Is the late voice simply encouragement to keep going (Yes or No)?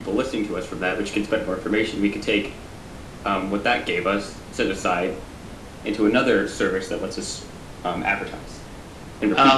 No